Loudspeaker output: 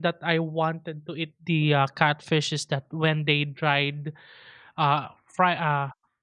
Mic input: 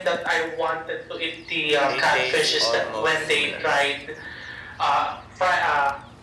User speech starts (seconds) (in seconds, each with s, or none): 1.8 s